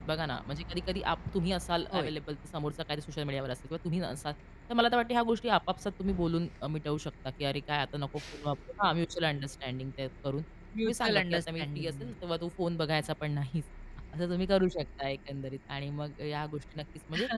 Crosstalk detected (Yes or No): Yes